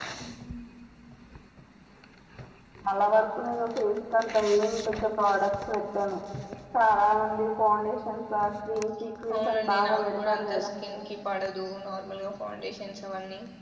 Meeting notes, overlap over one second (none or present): present